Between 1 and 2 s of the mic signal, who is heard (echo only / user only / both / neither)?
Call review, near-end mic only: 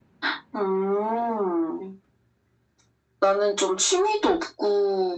echo only